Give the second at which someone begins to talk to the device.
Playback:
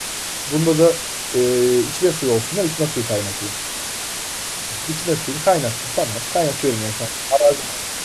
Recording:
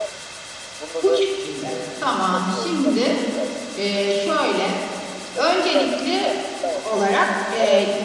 1 s

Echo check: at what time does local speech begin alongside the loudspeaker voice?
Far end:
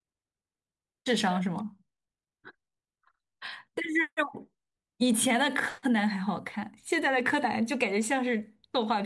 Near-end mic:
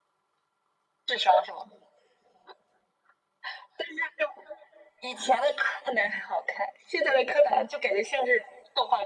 none

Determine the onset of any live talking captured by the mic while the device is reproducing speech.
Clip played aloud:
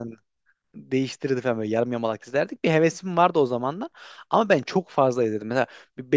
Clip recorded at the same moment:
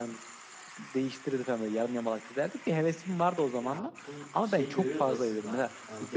4 s

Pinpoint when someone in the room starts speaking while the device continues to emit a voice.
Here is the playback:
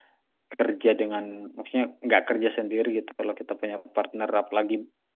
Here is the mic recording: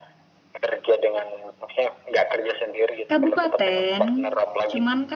3 s

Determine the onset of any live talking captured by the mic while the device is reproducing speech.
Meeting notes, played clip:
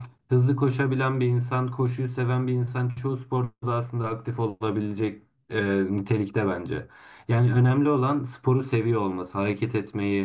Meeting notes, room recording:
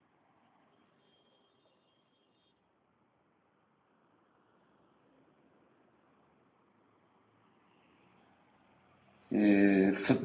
9 s

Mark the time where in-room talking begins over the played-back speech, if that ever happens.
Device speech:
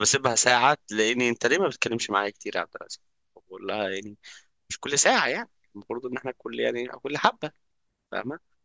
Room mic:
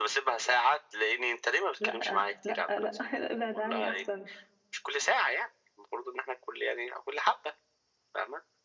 2 s

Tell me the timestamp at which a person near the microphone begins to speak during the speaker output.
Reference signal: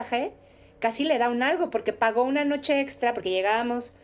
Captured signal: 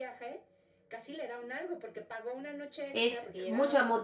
3 s

